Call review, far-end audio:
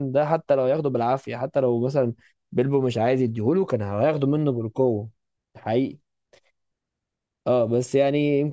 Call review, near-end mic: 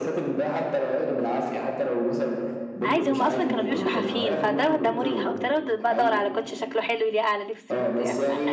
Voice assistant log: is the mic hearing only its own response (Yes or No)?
No